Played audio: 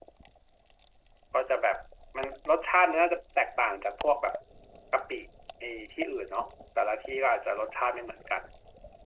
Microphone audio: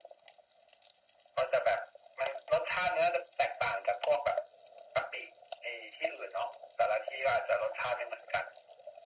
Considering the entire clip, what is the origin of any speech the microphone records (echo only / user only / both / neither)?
echo only